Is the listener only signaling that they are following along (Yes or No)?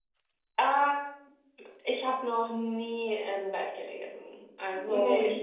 Yes